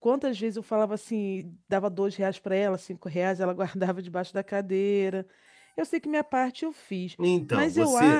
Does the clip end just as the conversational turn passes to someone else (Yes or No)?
Yes